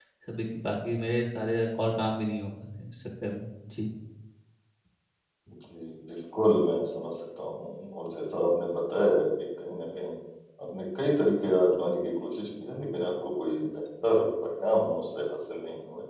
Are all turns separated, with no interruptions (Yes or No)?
Yes